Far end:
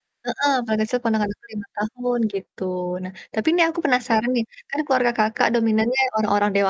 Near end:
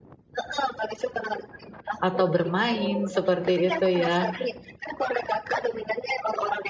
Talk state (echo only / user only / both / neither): both